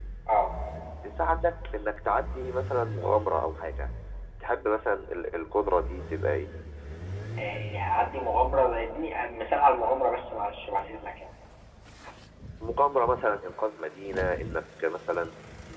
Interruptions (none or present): none